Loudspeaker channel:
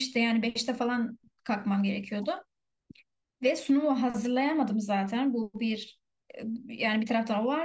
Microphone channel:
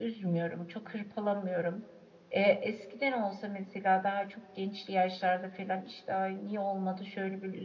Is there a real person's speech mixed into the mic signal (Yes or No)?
Yes